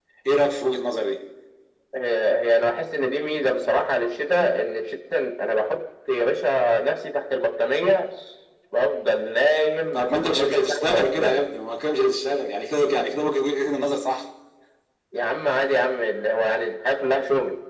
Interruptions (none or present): present